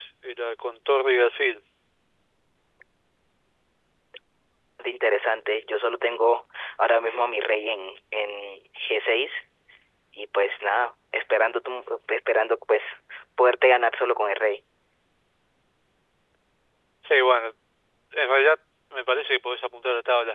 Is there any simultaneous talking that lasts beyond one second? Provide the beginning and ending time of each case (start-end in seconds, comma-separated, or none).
none